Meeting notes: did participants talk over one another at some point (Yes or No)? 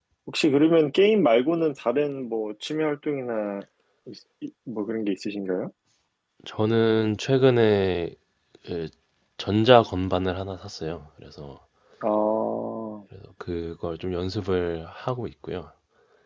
No